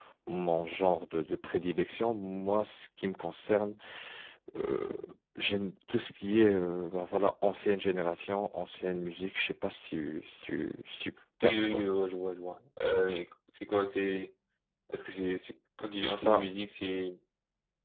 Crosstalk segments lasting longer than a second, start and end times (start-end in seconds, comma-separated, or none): none